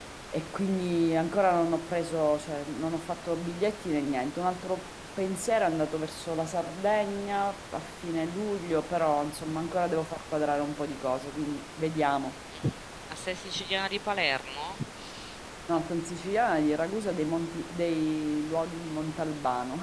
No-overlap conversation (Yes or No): Yes